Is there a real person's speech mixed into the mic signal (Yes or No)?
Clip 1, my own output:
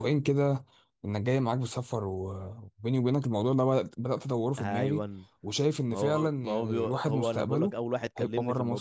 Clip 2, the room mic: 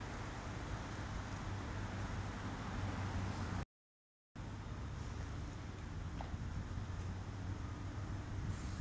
No